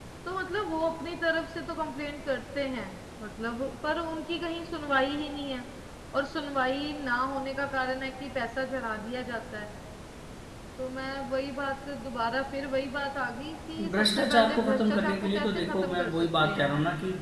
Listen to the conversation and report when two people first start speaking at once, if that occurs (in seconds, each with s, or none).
13.8 s